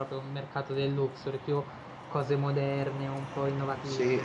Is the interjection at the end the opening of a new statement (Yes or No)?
Yes